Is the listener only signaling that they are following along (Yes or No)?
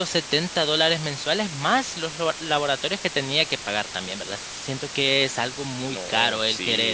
No